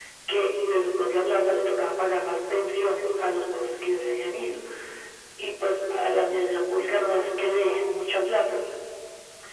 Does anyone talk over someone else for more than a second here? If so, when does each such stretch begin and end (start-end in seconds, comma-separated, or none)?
none